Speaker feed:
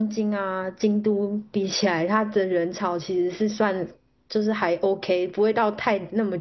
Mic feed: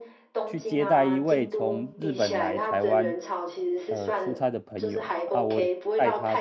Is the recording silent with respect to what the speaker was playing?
No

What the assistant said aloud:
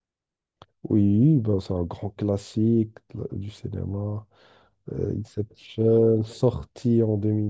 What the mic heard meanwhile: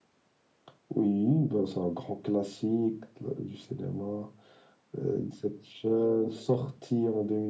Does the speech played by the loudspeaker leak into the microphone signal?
Yes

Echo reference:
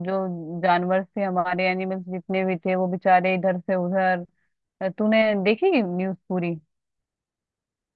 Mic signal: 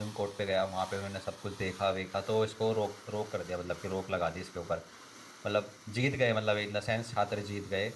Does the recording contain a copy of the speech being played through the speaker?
No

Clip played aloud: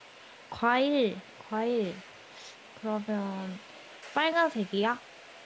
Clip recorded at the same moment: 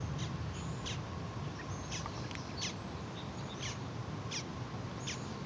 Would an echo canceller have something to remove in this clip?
No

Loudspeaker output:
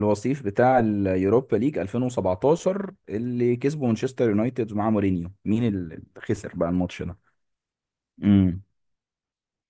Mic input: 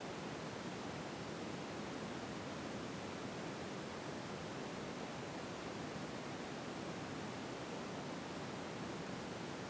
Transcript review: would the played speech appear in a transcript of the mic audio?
No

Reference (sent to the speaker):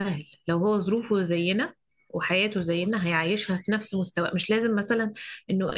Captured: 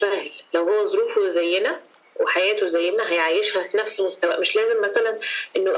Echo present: Yes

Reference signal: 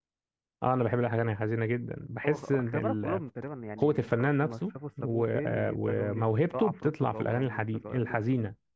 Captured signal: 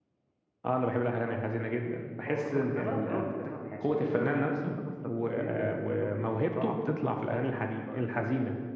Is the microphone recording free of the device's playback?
No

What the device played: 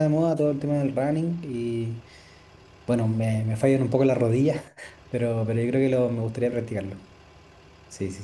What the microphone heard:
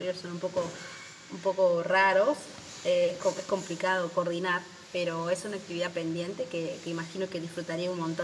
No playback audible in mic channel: Yes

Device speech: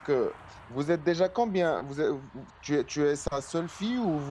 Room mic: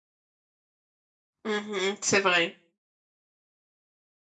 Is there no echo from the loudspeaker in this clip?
Yes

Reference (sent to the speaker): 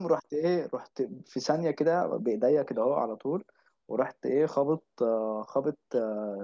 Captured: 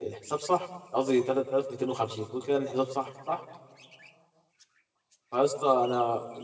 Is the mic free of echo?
Yes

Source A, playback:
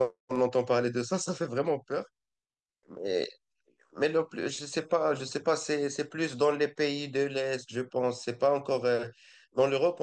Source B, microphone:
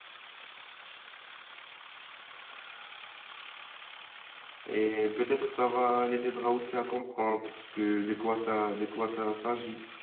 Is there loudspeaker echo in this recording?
No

